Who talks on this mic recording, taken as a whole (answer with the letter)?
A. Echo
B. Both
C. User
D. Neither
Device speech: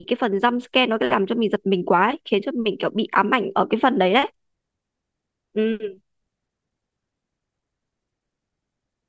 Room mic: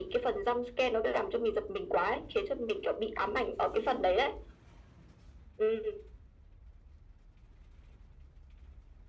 A